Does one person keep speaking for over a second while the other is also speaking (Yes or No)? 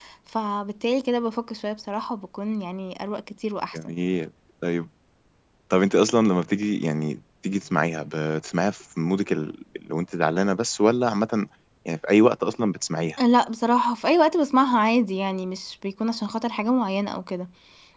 No